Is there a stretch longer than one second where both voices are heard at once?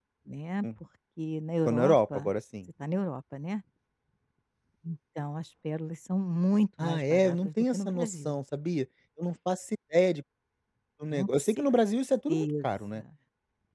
Yes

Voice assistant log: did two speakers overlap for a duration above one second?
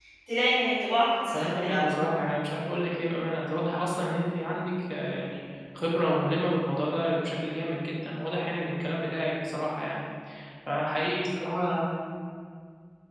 No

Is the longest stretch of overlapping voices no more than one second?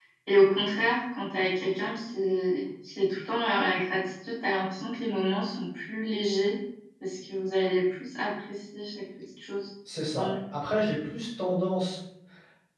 Yes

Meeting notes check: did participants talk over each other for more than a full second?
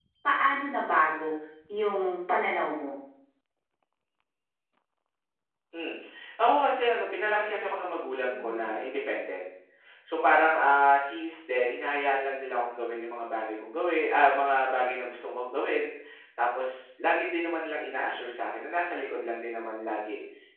No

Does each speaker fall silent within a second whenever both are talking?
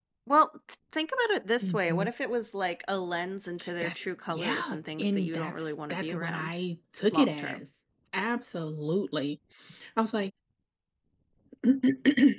No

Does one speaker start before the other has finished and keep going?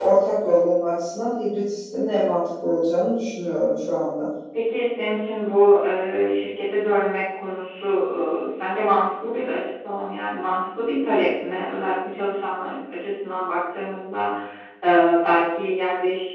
No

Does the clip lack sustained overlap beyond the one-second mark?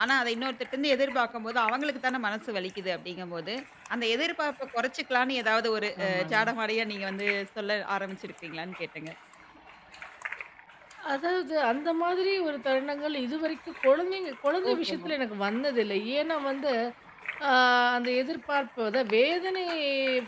Yes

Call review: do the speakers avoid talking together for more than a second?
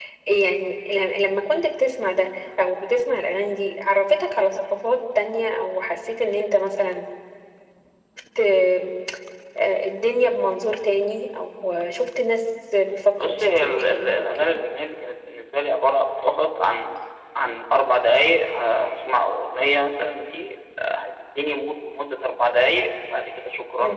No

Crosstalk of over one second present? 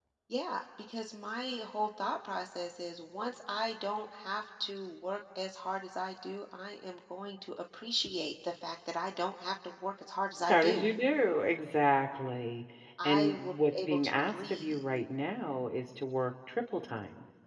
Yes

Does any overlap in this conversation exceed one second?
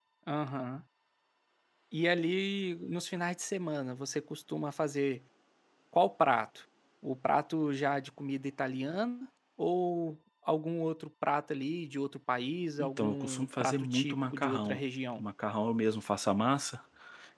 Yes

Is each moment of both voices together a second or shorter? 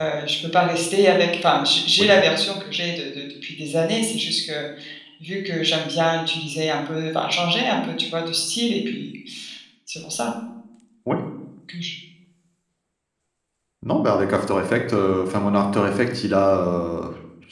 Yes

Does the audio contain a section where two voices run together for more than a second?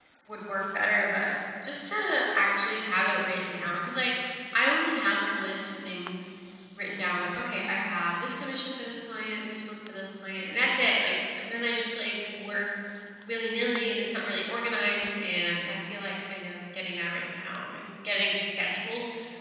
No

